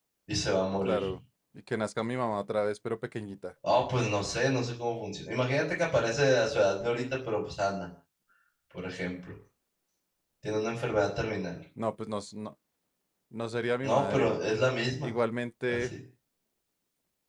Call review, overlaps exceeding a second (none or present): none